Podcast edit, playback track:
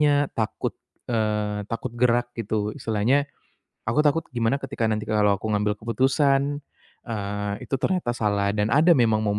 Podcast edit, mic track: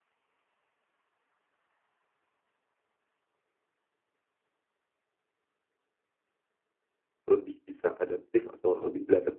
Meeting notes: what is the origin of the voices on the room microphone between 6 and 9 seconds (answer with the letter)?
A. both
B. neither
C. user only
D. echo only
C